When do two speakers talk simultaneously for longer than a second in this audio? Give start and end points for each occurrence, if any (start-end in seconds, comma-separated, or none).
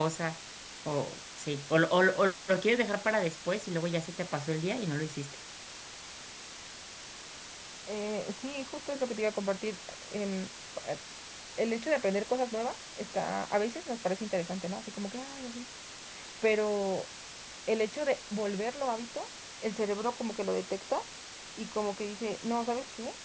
none